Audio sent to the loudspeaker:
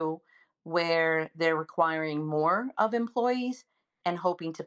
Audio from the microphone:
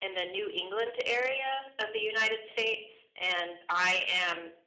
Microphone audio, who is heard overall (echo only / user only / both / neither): user only